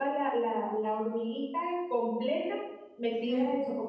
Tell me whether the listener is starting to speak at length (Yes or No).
No